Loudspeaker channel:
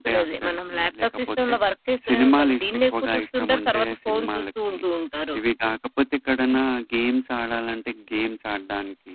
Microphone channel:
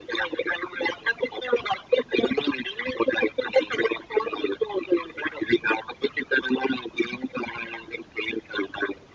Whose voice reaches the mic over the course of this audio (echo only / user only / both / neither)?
echo only